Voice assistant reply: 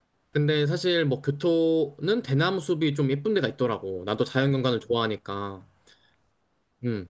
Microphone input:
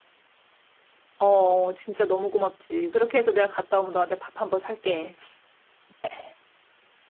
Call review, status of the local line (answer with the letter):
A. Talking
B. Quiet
A